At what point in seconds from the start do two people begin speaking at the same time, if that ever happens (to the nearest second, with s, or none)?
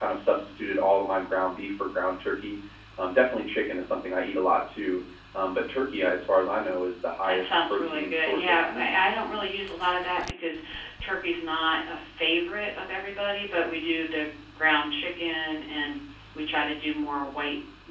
7 s